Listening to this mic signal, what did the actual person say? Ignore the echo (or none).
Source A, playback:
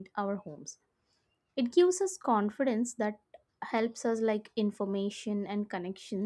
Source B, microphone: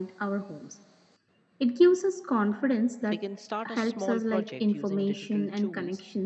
they can start a small project using digital tools.